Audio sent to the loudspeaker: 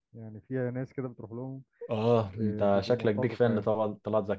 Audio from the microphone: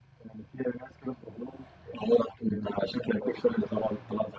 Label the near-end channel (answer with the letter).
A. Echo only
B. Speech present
A